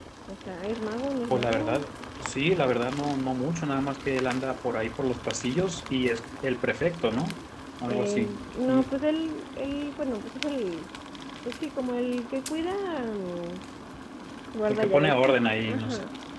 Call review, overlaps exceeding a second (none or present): present